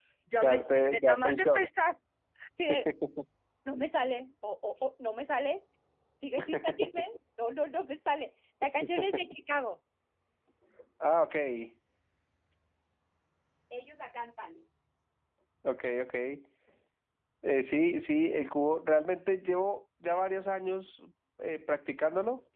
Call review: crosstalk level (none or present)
present